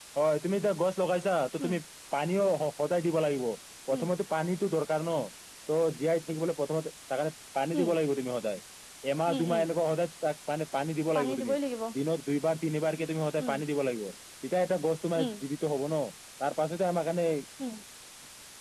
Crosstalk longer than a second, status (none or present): none